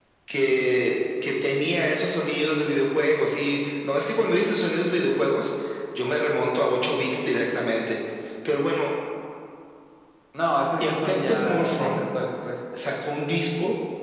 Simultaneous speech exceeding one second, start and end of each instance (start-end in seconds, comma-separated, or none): 10.8-12.0